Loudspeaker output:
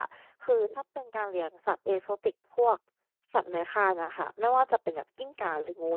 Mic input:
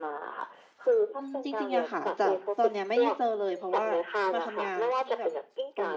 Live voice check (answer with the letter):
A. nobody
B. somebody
B